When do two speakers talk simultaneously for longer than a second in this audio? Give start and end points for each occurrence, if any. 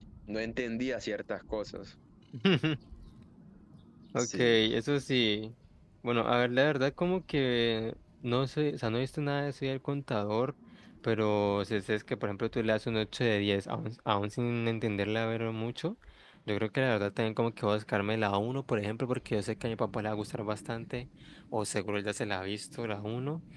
none

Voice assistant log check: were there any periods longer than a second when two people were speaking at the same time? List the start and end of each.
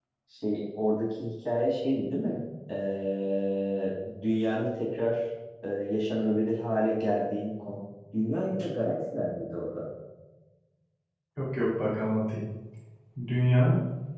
none

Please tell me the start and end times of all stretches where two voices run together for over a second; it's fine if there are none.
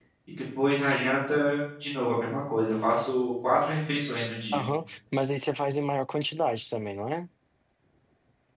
none

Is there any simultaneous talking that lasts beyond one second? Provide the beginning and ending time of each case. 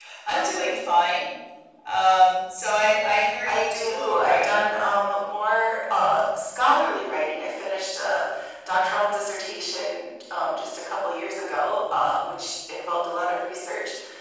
3.4-4.7

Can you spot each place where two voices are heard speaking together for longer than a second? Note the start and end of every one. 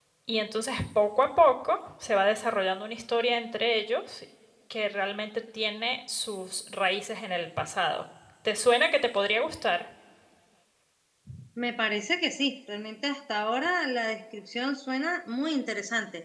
none

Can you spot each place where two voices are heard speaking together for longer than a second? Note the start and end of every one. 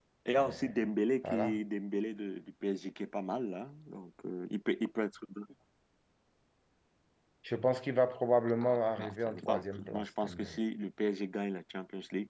8.6-10.6

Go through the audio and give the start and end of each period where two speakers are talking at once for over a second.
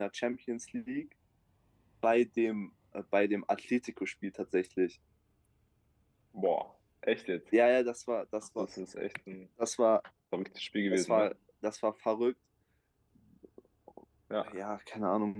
none

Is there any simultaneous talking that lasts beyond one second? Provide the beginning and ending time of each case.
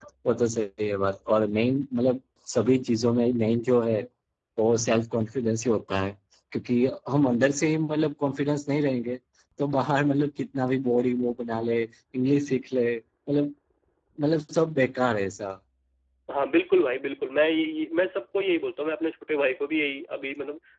none

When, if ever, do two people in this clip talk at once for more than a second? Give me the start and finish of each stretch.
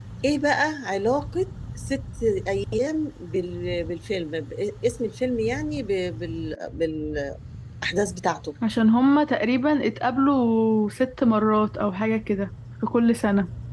none

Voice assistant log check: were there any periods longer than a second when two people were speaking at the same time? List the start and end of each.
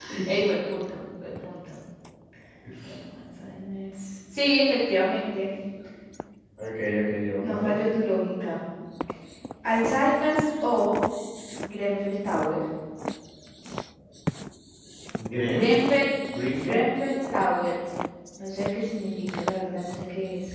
none

